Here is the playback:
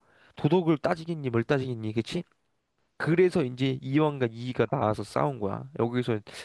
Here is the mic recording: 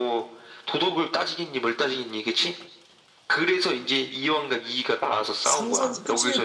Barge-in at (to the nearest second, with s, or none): 5 s